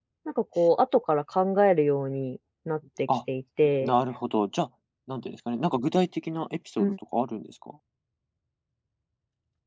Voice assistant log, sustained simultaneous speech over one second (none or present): none